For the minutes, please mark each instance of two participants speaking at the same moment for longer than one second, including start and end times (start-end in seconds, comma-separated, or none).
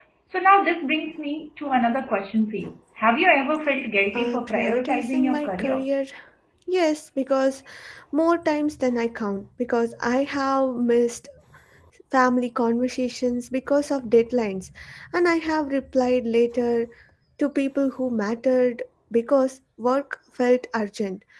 4.2-5.8